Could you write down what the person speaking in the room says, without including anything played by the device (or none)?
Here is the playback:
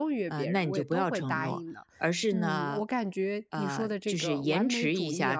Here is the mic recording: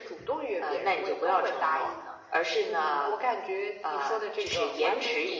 none